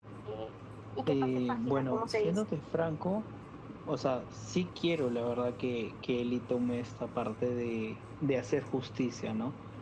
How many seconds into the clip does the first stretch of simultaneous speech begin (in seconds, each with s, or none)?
1.1 s